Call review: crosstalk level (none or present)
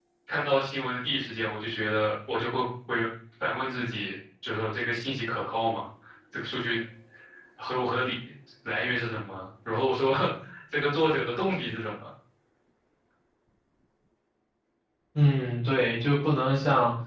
none